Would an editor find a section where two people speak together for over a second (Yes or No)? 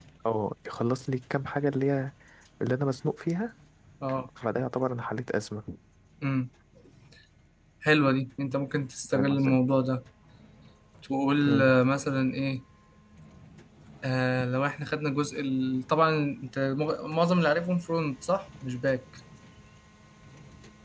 No